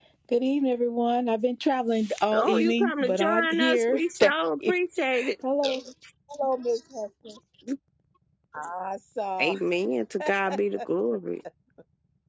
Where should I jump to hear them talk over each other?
2.3 s

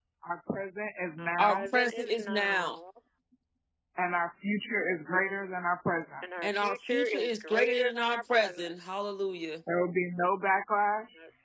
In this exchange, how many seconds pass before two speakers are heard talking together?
1.2 s

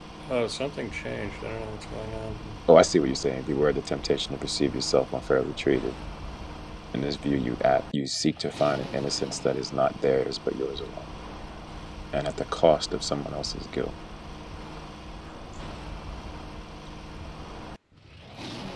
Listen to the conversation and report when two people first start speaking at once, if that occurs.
none

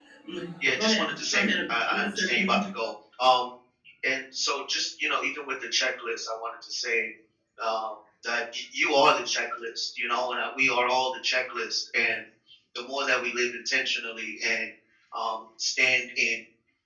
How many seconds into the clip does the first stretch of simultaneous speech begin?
0.8 s

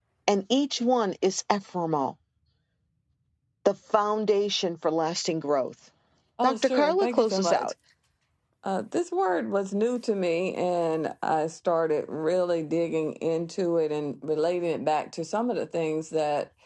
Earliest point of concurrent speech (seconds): 6.4 s

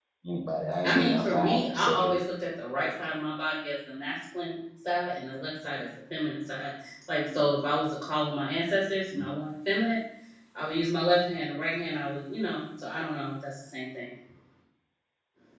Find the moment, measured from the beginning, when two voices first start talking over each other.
0.8 s

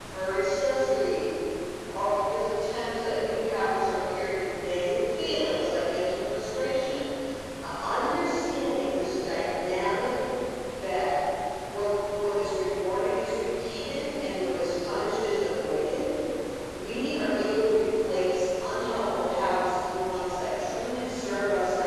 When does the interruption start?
none

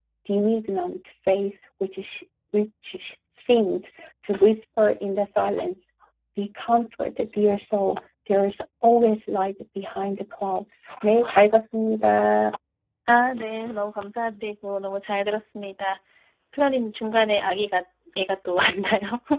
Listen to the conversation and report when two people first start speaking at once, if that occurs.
none

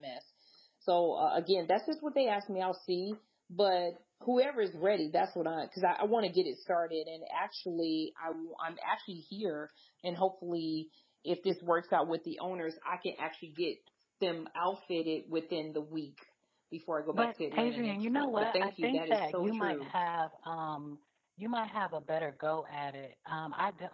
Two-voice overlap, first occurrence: 17.1 s

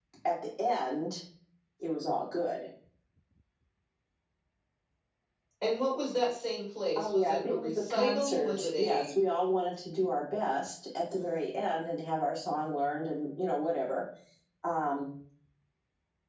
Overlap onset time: 7.0 s

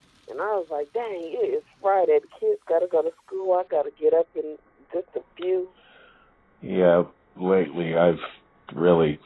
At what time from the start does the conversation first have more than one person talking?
none

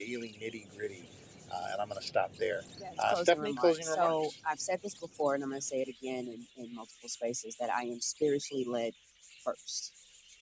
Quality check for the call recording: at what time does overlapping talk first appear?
2.8 s

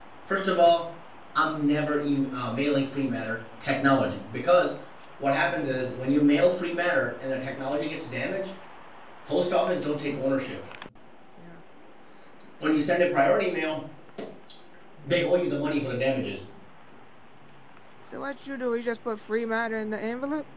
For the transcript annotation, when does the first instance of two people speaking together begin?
none

